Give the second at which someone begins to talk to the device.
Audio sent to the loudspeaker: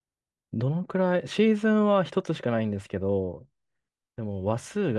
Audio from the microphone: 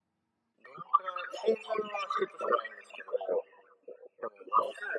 none

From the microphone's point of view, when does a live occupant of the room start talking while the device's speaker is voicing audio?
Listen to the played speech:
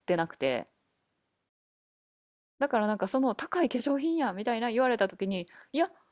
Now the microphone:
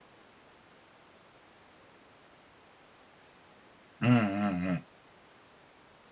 4.0 s

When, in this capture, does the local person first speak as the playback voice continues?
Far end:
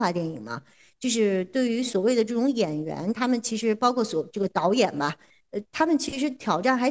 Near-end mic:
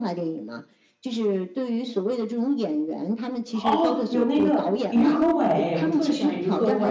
3.6 s

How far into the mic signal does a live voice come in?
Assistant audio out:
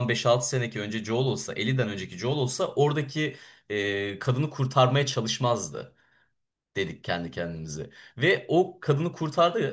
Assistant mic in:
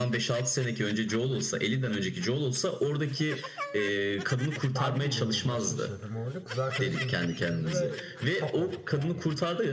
4.5 s

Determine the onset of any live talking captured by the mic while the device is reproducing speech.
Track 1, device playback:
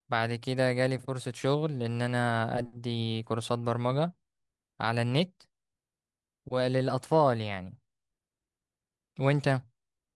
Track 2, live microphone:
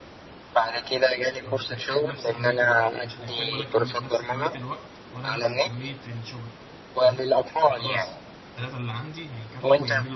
1.4 s

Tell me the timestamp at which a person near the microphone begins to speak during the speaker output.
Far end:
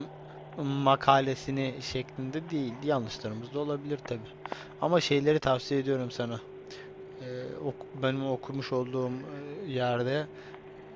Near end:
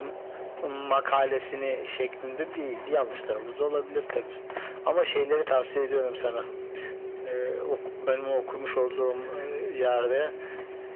none

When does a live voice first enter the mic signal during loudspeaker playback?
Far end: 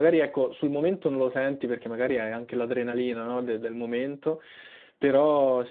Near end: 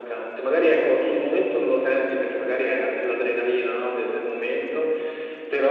none

